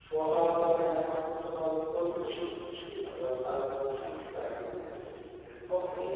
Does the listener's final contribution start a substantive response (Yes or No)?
Yes